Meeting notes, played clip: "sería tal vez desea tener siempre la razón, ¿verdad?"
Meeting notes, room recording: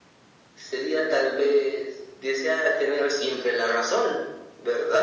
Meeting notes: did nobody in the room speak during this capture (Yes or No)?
Yes